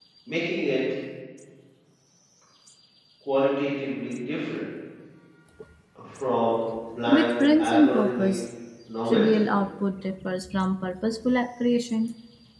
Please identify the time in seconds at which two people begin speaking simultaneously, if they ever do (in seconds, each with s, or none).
7.1 s